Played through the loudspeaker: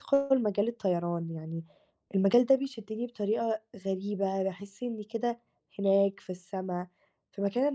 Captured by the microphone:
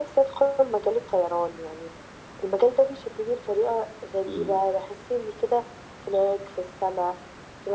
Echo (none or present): present